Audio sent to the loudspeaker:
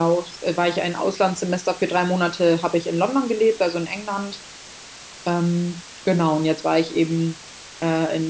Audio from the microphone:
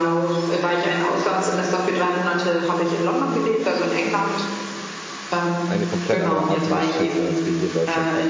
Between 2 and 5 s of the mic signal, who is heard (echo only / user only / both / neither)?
echo only